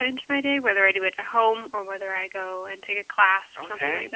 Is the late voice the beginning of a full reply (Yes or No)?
Yes